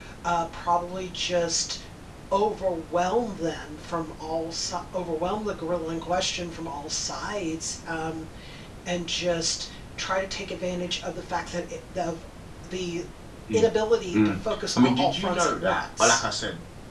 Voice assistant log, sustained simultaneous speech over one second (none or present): present